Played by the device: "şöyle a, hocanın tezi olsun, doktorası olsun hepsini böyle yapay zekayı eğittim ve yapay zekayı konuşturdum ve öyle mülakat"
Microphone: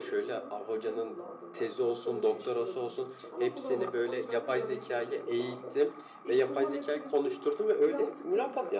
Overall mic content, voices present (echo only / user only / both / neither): both